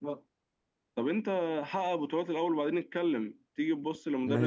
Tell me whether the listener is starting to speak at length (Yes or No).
Yes